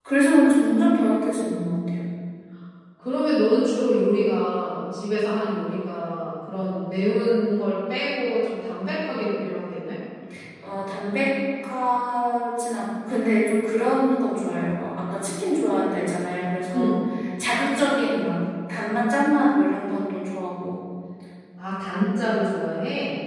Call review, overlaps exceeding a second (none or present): none